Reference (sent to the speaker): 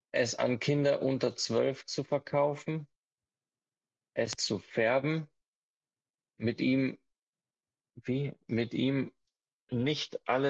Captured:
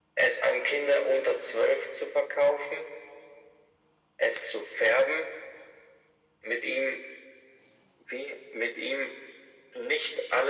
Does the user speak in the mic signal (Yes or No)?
No